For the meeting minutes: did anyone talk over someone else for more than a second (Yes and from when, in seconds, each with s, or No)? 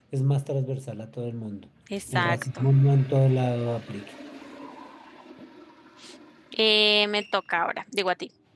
No